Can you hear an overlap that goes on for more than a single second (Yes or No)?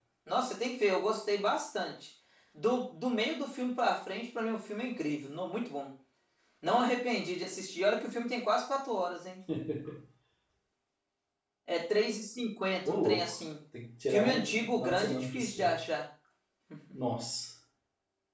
Yes